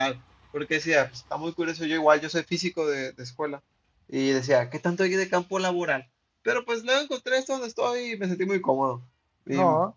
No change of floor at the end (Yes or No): Yes